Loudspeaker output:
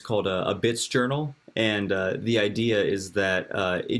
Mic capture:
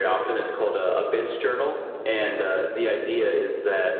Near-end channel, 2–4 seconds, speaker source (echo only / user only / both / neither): echo only